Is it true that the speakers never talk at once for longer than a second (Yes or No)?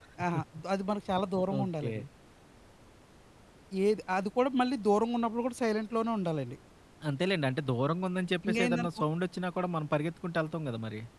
Yes